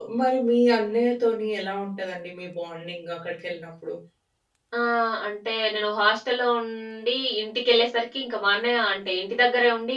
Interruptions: none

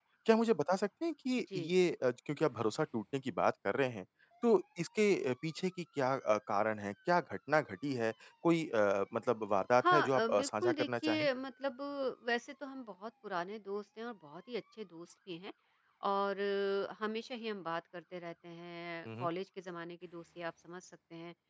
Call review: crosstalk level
present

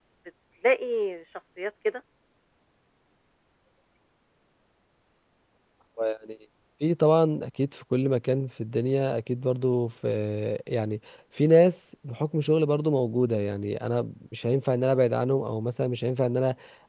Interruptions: none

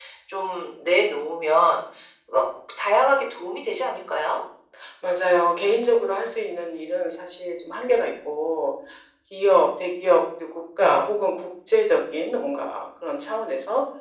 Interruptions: none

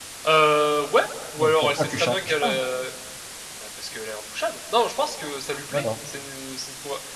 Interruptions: present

